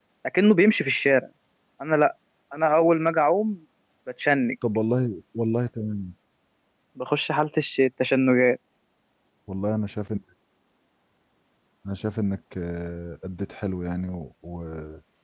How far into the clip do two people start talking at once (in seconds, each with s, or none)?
none